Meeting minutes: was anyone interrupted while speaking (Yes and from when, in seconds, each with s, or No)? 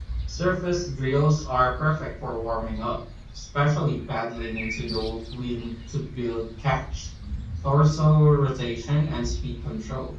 No